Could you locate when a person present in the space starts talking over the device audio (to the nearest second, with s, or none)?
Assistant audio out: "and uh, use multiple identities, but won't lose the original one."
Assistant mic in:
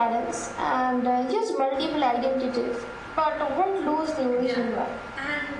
4 s